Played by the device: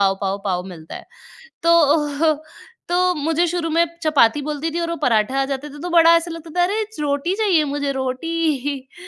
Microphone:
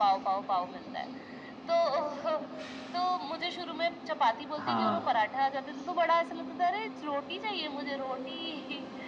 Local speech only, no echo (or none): हाँ,